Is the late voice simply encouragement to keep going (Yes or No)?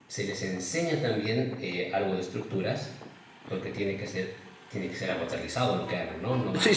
No